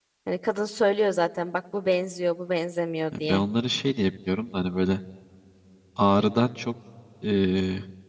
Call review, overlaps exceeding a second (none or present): none